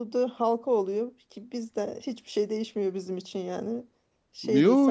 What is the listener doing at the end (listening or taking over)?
taking over